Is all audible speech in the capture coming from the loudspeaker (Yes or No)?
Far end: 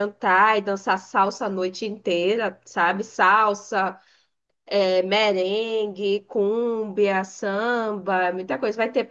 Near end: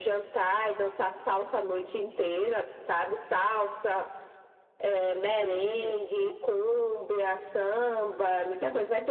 No